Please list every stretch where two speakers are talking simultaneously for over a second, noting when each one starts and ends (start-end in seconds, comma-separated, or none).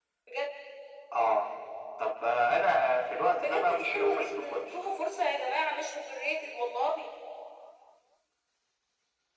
3.4-4.7